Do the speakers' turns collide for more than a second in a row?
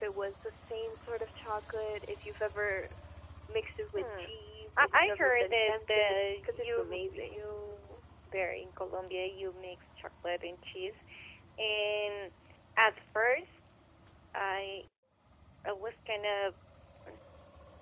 Yes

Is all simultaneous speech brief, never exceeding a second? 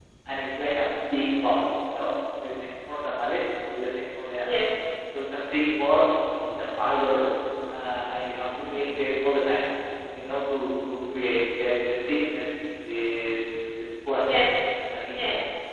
Yes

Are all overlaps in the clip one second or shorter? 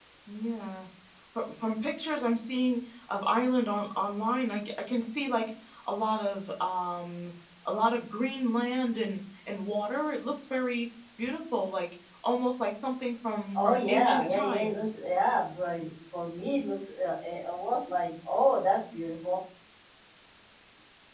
No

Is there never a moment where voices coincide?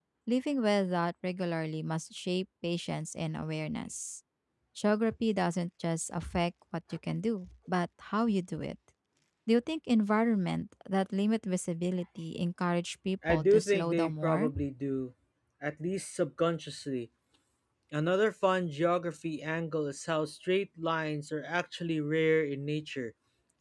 No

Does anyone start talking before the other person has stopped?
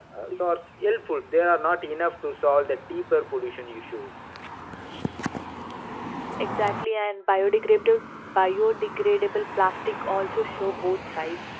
No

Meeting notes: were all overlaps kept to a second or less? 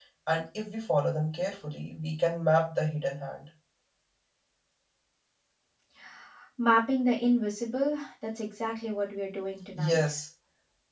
Yes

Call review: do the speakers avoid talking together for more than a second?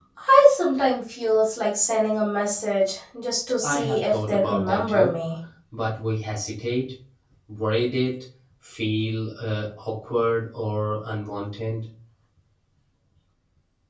No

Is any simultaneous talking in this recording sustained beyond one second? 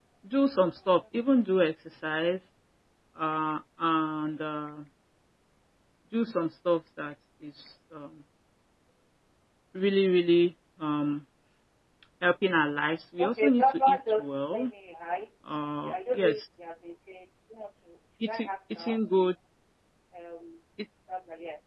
Yes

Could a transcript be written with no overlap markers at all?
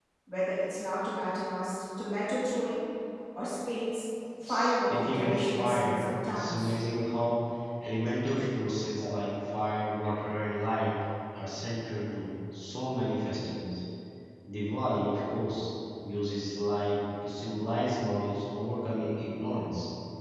No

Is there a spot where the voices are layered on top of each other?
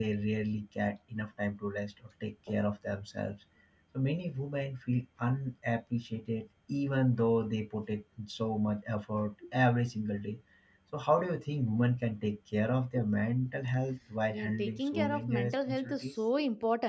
Yes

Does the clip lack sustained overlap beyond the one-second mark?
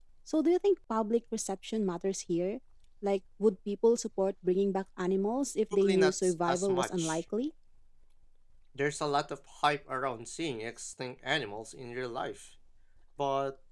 No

